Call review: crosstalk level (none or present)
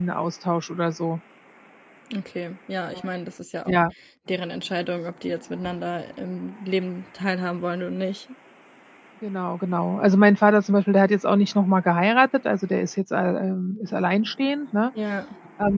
none